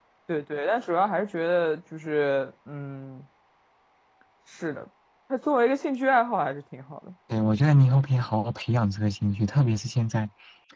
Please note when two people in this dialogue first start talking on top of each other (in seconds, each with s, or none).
none